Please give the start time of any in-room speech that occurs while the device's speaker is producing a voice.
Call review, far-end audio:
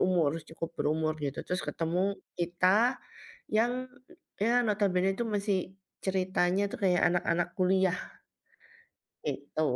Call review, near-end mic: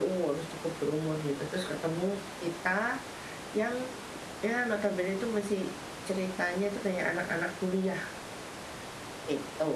none

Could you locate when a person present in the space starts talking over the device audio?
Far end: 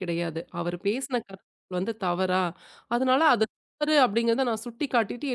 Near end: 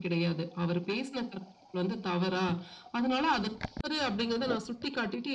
none

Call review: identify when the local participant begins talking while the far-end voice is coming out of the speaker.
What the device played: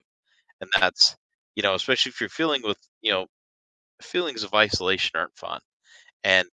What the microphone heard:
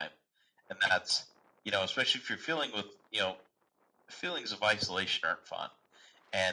none

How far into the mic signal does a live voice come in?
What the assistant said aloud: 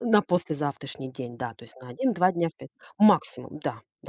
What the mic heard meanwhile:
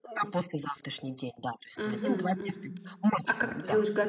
1.8 s

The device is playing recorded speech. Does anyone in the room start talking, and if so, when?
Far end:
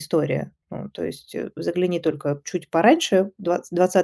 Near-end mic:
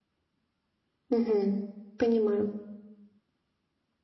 1.1 s

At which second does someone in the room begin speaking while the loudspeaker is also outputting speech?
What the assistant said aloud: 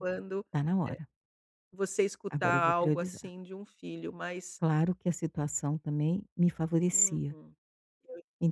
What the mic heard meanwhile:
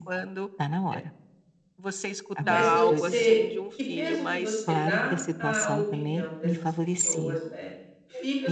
2.4 s

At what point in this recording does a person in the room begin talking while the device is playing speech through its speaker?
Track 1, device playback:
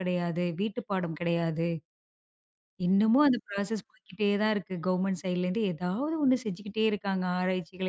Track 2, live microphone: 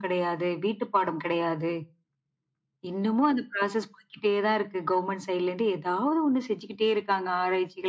none

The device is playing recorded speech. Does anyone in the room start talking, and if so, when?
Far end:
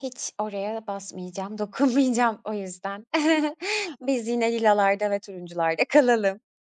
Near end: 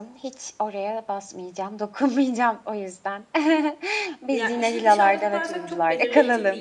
4.3 s

